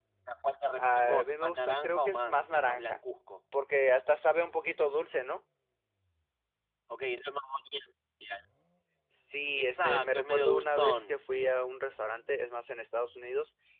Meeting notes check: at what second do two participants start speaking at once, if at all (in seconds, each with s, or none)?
0.8 s